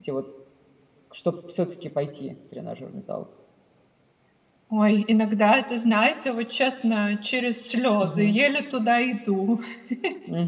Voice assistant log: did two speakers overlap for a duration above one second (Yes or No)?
No